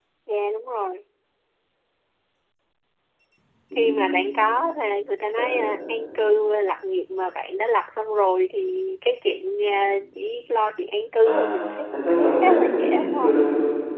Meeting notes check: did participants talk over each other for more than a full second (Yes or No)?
Yes